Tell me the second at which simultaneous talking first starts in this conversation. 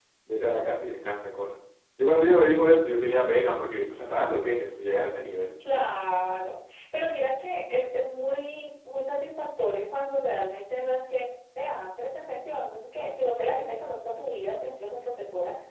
none

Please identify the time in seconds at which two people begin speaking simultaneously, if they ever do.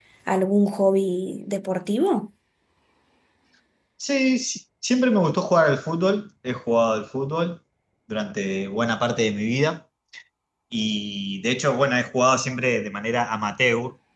none

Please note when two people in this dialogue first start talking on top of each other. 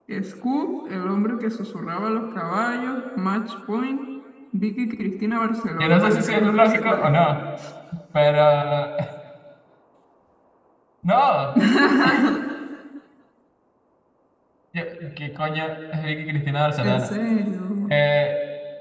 5.8 s

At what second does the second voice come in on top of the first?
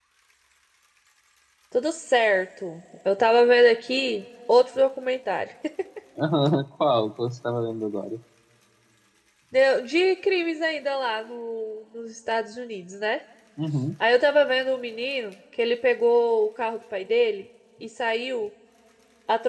none

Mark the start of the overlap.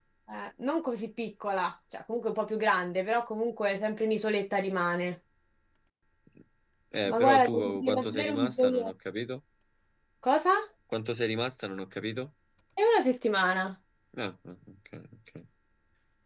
7.0 s

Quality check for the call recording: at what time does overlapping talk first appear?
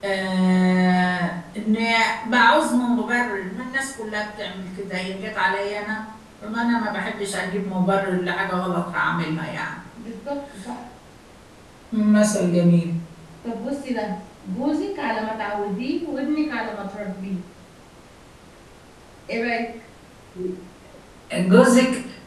none

